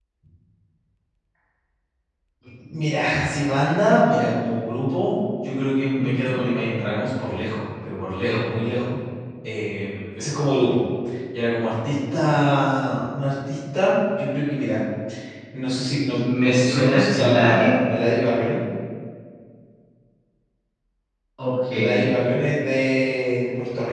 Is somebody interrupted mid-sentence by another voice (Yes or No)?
Yes